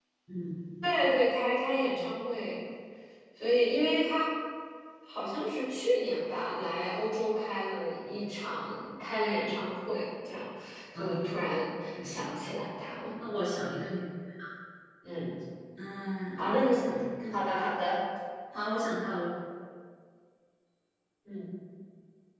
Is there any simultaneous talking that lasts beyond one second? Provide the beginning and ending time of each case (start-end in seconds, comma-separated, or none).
none